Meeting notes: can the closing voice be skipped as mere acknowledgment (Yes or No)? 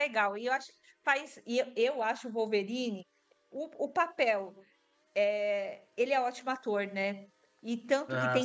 Yes